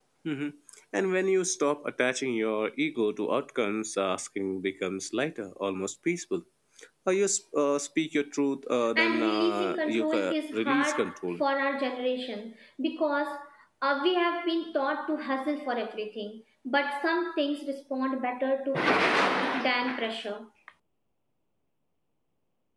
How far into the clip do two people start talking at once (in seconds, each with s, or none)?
8.9 s